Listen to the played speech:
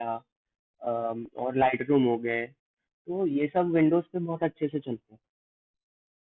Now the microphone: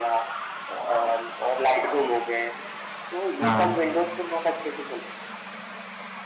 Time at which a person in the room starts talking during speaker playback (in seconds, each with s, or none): 3.4 s